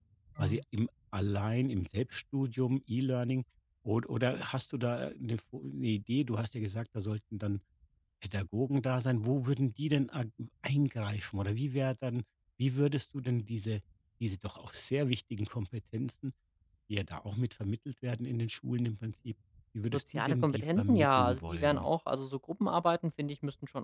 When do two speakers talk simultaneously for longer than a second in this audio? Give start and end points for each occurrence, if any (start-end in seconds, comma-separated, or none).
19.9-21.9